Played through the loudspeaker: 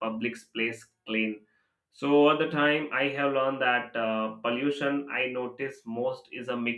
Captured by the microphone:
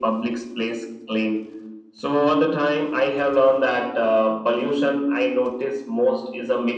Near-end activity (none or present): none